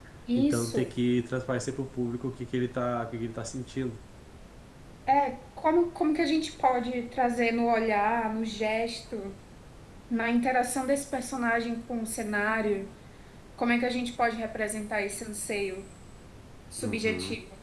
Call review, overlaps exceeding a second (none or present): none